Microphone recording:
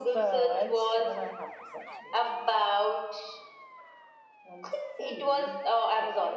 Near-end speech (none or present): present